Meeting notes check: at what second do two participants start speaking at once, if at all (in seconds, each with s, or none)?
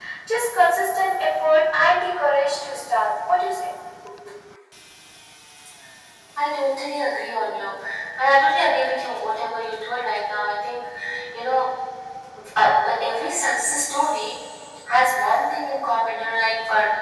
none